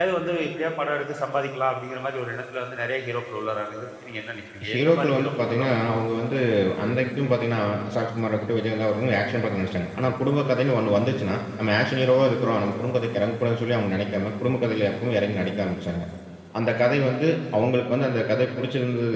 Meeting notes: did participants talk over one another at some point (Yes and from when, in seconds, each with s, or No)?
Yes, from 4.6 s